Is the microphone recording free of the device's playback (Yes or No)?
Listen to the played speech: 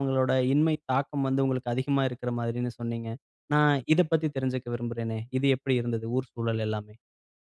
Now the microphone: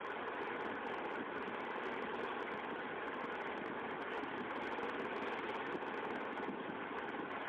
Yes